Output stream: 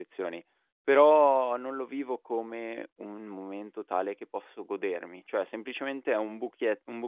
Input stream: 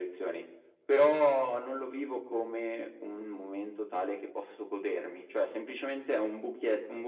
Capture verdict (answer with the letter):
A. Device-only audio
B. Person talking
A